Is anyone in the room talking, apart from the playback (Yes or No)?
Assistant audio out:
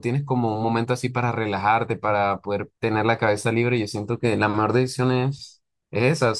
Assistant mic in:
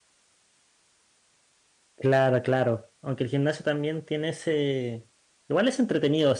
Yes